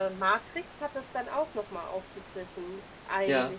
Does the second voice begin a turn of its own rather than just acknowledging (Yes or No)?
No